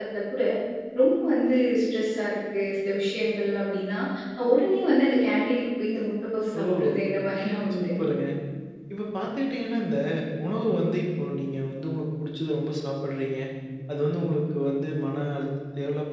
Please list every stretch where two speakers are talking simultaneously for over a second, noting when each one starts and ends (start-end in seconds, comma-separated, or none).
none